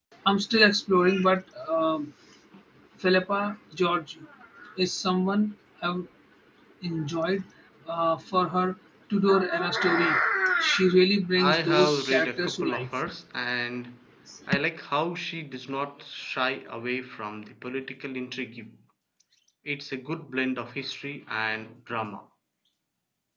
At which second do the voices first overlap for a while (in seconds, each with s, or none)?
11.4 s